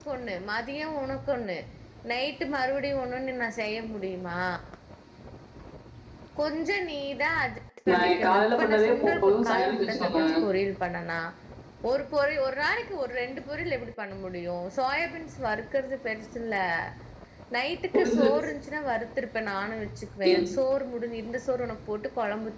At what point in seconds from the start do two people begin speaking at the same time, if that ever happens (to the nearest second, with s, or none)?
8 s